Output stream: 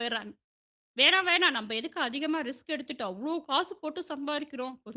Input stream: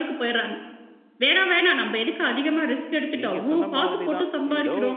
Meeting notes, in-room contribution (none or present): present